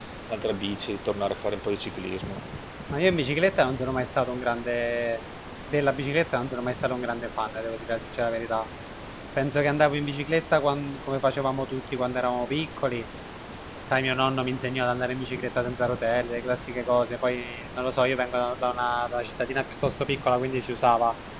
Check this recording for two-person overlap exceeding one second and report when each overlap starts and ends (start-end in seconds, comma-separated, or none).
none